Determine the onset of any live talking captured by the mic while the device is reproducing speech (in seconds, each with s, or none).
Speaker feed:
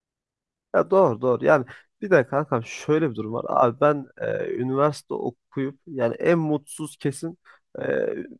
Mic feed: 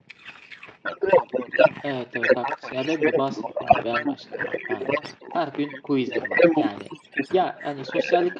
1.8 s